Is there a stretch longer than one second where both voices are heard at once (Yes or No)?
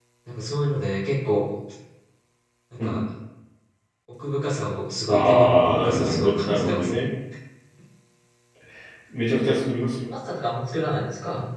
Yes